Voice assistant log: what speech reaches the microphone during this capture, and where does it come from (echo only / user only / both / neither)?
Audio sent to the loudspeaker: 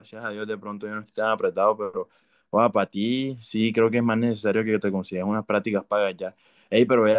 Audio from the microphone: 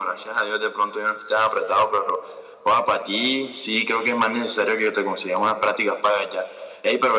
echo only